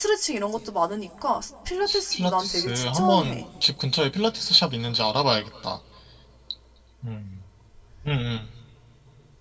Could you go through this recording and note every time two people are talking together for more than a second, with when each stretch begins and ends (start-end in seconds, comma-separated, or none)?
2.1-3.4